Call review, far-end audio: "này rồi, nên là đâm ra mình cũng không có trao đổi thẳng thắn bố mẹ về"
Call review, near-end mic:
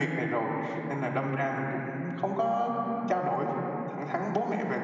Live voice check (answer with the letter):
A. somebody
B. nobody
B